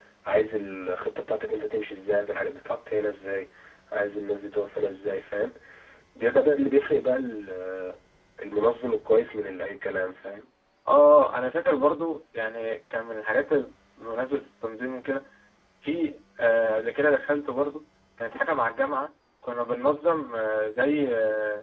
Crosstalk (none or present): none